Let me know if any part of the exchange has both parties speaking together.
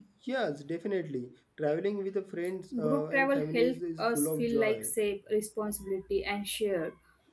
Yes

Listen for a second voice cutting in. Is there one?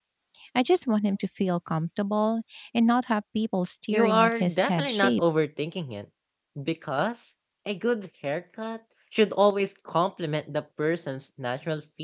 Yes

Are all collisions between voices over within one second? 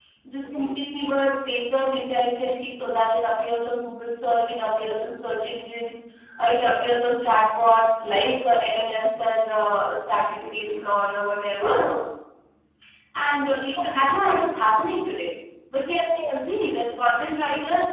Yes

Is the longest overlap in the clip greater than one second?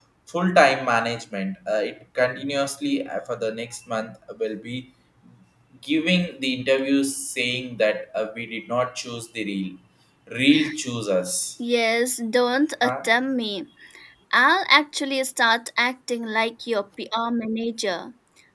No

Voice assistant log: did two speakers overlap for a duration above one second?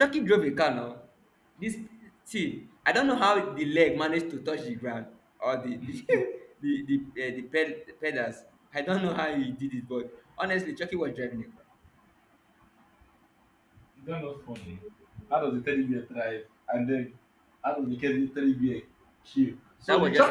No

